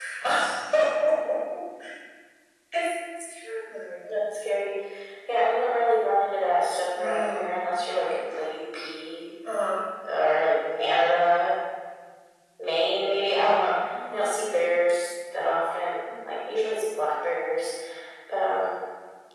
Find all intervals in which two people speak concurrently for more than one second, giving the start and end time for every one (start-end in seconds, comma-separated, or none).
none